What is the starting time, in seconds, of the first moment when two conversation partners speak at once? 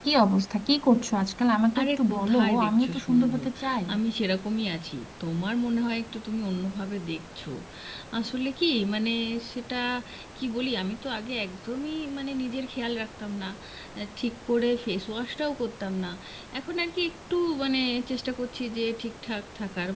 1.8 s

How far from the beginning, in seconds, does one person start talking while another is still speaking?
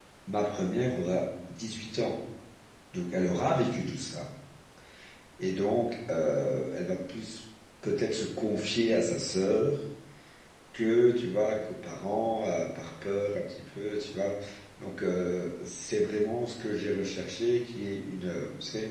none

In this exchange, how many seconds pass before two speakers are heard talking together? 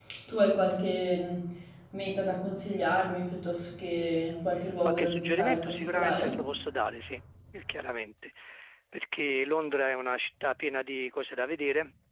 4.8 s

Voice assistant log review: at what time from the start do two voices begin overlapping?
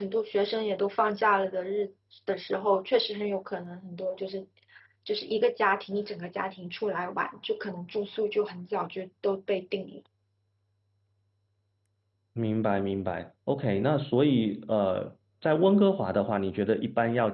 none

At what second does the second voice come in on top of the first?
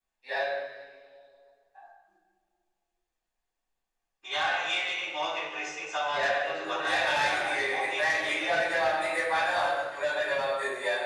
6.1 s

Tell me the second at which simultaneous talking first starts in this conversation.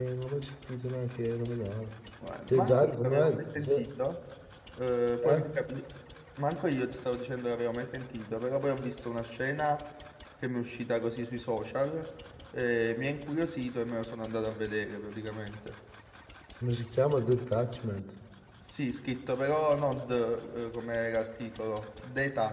2.5 s

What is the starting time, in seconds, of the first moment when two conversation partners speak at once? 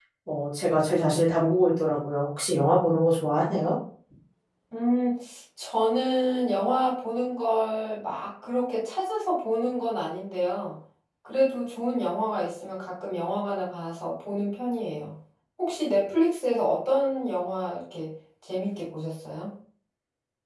none

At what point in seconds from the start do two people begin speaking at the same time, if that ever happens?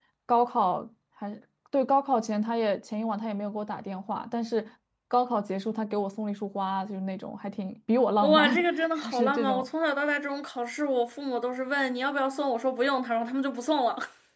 8.2 s

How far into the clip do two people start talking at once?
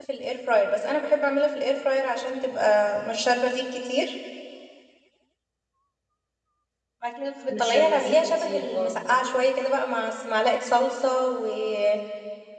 7.6 s

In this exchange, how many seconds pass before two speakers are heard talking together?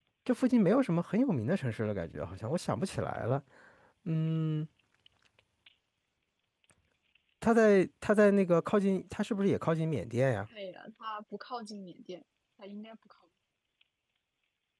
none

